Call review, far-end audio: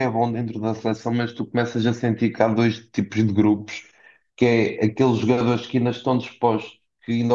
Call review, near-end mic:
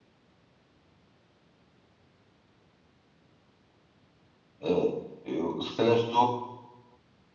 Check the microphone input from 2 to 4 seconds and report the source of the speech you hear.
neither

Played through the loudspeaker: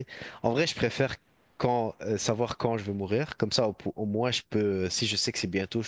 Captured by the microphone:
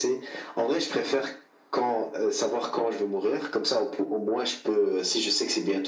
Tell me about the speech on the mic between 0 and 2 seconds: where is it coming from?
echo only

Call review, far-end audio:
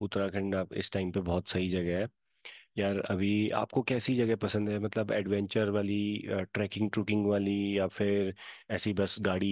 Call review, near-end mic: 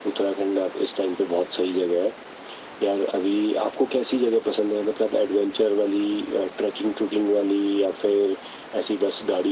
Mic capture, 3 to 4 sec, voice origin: echo only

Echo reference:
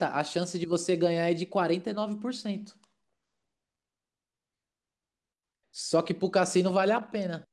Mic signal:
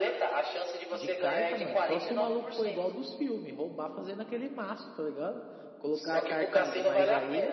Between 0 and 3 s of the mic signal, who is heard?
both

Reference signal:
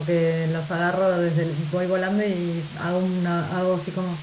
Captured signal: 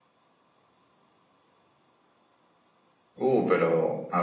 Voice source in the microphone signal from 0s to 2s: neither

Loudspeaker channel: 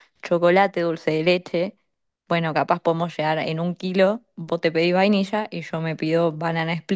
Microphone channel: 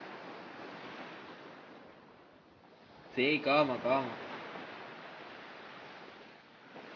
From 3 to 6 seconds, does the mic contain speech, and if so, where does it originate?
user only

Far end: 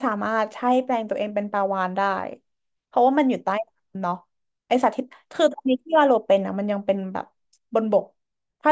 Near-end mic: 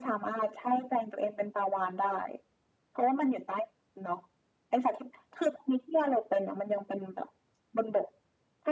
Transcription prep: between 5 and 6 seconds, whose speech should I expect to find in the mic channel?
echo only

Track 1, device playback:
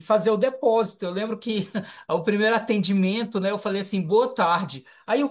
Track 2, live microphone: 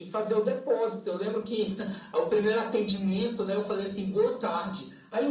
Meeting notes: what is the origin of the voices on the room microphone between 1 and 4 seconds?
echo only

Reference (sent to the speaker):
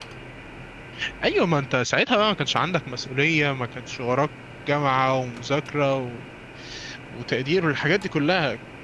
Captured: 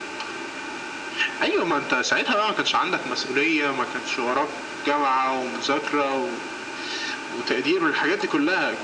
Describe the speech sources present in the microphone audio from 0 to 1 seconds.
neither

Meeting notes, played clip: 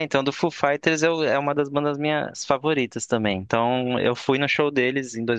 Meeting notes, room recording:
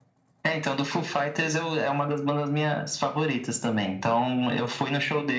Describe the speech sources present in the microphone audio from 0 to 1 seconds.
echo only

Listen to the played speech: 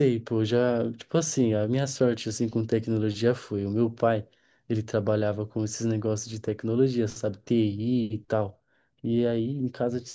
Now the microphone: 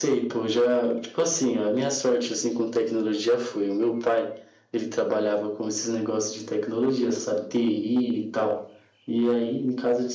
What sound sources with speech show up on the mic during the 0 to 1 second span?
echo only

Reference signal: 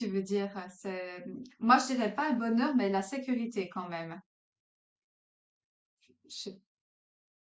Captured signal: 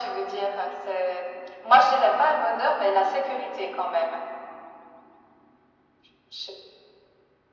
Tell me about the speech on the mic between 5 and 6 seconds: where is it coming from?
neither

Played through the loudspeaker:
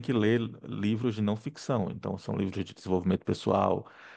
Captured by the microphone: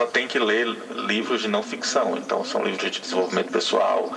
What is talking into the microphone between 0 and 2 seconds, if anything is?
both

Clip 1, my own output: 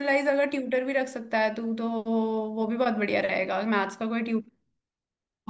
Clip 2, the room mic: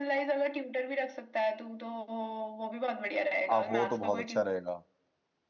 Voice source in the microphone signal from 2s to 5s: both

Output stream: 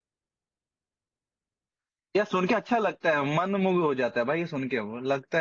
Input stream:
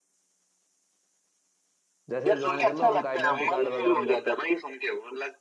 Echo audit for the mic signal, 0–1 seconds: neither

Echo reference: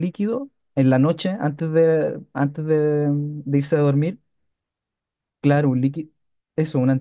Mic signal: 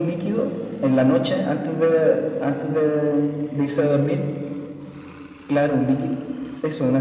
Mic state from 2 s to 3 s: echo only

